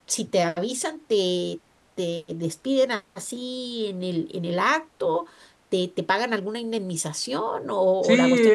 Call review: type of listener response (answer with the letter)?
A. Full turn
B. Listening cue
A